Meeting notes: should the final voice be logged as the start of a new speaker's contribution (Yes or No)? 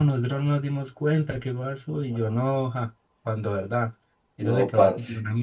No